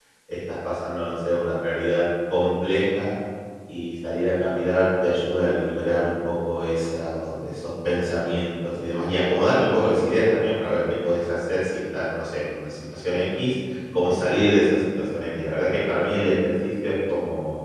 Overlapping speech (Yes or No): No